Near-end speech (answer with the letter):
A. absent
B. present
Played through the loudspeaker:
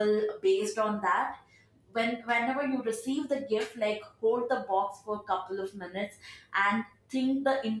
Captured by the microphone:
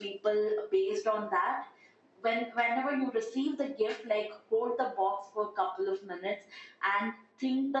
A